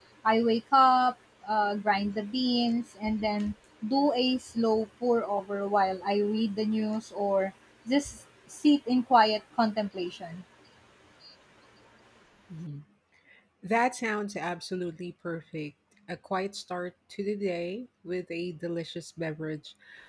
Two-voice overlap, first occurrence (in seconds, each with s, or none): none